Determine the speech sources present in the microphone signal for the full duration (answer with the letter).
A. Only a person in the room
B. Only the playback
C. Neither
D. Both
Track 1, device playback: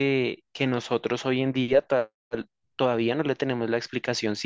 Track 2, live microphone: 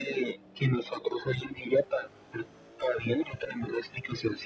B